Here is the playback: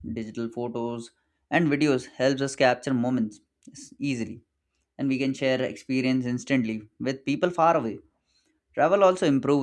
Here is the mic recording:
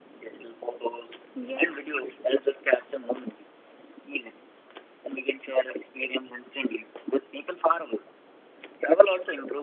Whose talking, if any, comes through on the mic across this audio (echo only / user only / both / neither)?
both